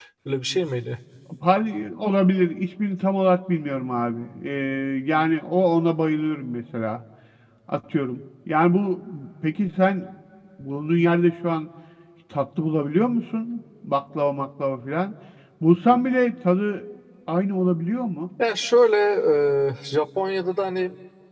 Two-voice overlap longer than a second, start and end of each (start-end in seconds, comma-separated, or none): none